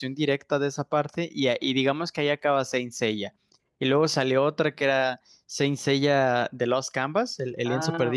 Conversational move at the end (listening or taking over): taking over